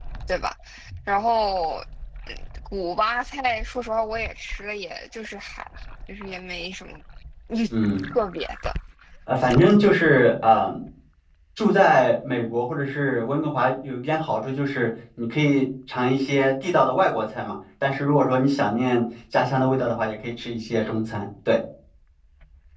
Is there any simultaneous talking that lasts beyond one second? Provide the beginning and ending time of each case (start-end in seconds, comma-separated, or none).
none